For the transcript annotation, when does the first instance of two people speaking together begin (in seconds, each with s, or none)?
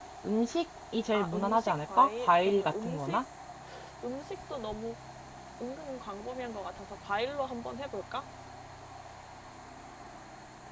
1.1 s